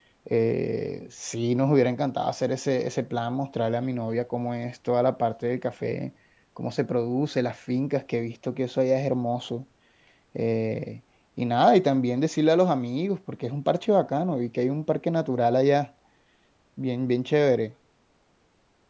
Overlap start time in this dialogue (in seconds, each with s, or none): none